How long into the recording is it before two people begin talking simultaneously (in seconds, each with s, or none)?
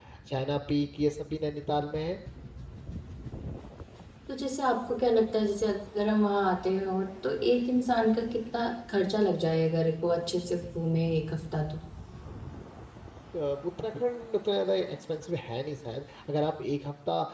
none